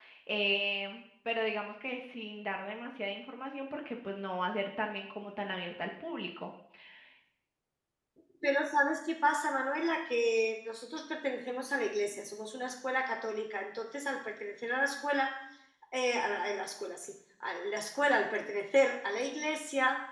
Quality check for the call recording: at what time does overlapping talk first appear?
none

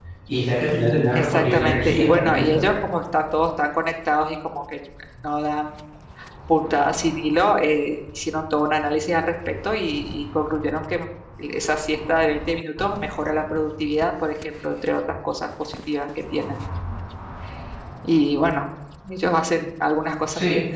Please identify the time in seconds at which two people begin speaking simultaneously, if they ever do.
1.1 s

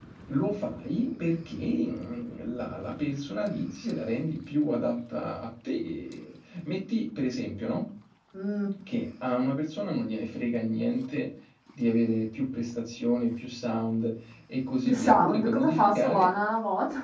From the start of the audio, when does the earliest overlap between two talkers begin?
14.8 s

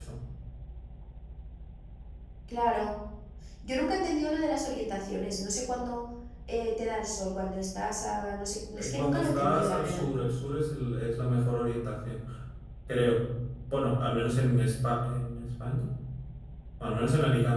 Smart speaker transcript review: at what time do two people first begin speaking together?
8.7 s

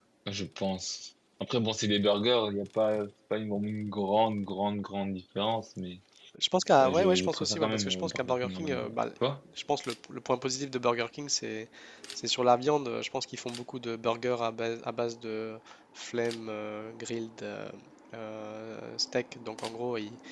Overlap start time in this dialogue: 6.8 s

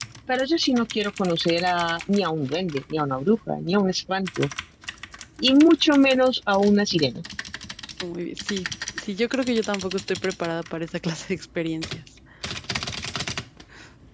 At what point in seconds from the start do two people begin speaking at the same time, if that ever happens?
none

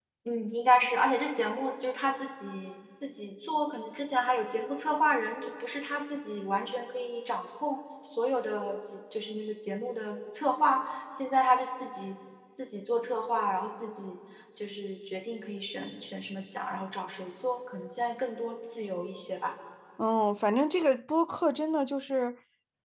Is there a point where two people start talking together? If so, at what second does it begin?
none

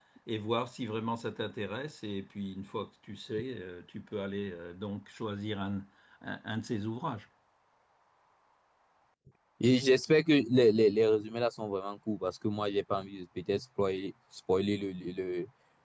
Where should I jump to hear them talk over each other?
none

